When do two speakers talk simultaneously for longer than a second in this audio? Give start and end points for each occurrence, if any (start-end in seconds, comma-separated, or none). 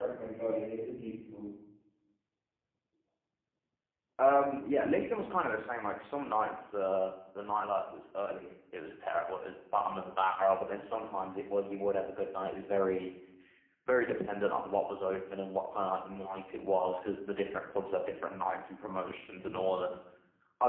none